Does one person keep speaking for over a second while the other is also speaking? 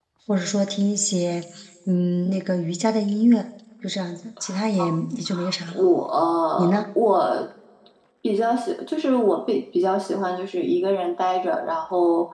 No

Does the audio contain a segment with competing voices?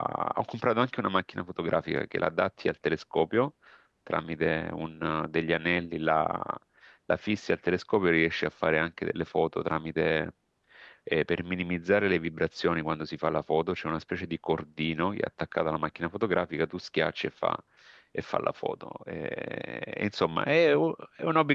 No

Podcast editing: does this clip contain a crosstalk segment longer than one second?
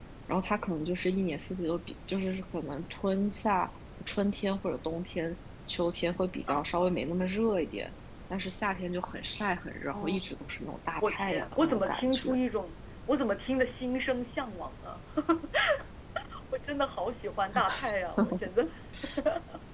Yes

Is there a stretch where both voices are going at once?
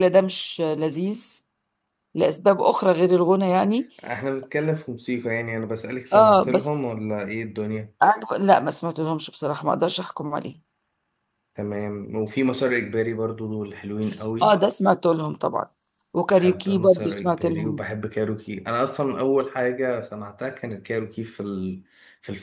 Yes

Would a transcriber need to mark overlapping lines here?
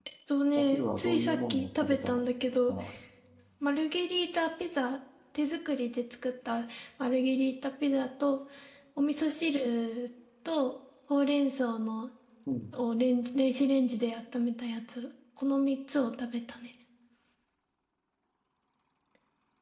Yes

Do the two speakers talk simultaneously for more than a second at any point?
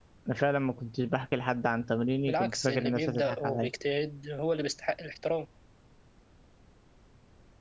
Yes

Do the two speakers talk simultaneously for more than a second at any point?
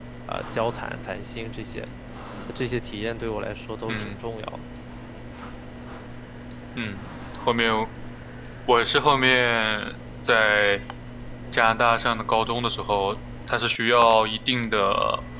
No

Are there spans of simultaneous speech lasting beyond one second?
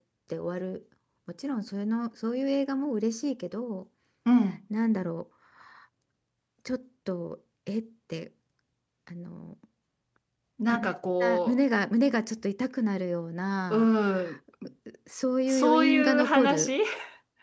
Yes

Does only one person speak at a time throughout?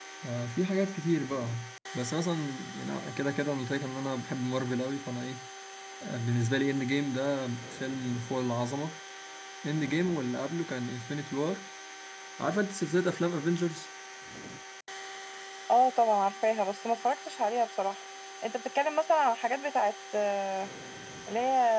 Yes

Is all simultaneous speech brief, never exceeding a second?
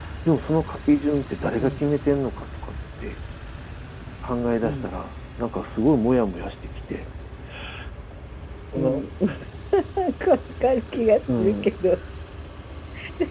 Yes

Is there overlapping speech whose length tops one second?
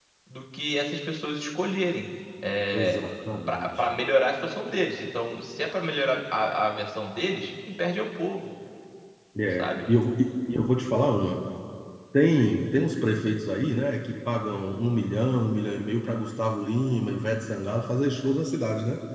No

